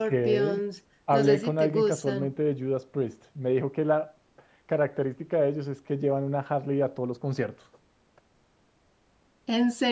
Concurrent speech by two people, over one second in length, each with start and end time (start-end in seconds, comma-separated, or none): 1.1-2.3